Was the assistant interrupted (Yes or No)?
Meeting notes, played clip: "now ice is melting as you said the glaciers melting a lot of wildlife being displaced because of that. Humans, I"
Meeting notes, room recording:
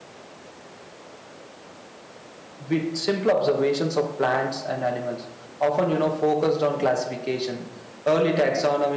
Yes